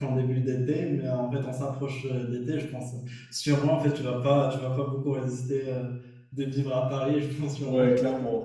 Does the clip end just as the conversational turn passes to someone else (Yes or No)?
Yes